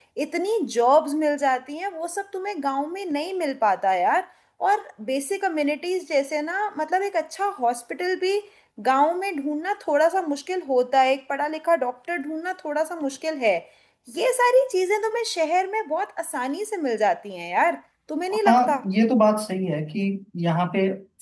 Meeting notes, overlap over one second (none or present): none